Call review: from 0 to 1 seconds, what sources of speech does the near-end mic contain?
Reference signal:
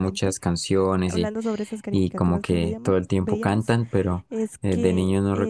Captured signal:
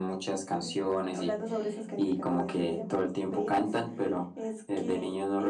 both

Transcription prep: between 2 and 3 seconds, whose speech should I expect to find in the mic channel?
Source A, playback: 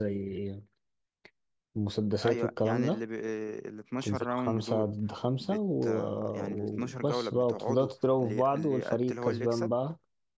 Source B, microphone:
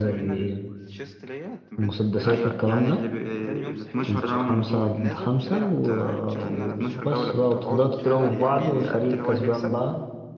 both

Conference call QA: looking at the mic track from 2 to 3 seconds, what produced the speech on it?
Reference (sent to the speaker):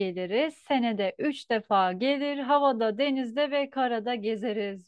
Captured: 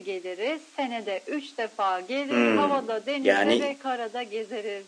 both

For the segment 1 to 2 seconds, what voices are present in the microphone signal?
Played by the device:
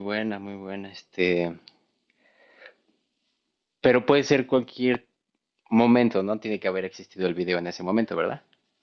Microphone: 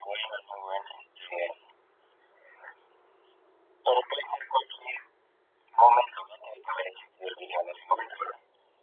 echo only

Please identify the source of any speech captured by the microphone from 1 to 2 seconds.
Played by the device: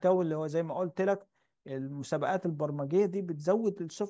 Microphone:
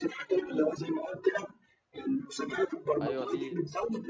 echo only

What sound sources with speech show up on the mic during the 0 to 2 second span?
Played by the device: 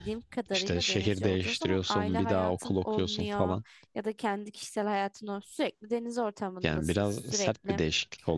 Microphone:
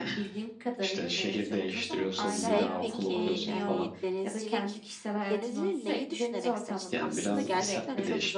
echo only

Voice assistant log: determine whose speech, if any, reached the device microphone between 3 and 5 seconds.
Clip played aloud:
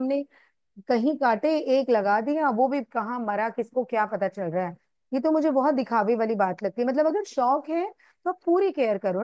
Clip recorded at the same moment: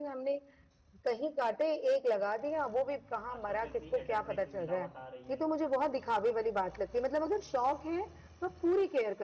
both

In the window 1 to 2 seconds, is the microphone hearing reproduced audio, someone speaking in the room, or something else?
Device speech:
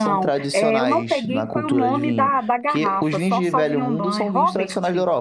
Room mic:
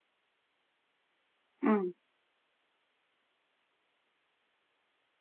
user only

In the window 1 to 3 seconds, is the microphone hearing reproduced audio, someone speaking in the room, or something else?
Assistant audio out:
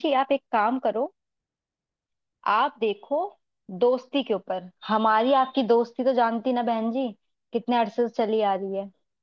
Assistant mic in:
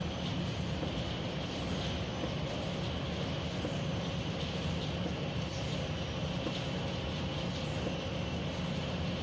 neither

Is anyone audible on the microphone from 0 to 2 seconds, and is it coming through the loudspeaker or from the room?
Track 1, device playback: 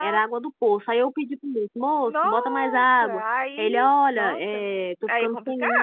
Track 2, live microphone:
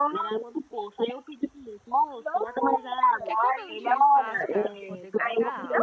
echo only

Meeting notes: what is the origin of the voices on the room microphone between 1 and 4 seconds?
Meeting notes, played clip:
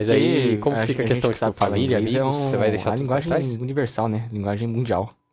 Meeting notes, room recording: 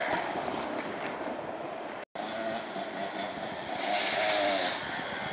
neither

